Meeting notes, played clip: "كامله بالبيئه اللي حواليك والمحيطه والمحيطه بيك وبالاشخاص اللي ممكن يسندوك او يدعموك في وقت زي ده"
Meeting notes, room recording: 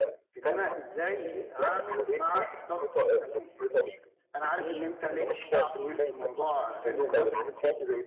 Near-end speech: present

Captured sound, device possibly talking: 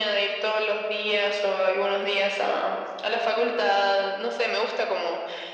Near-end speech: none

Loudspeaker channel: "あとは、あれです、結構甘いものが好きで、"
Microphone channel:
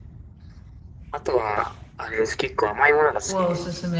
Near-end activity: present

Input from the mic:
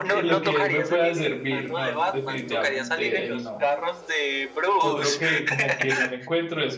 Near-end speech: present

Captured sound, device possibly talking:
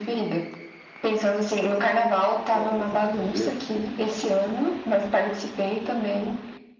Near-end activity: present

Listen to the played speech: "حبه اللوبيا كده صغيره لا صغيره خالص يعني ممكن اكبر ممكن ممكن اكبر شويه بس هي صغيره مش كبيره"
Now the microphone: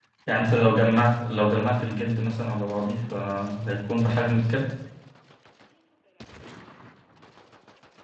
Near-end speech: present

